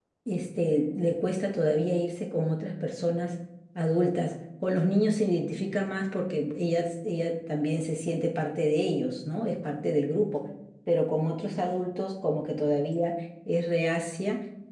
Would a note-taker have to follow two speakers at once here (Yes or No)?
No